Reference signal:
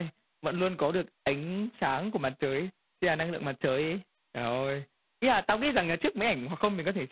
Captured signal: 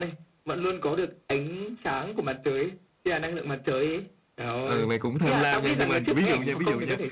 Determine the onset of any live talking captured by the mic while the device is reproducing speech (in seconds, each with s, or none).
4.6 s